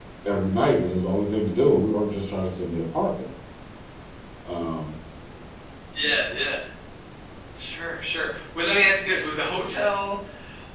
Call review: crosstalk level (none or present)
none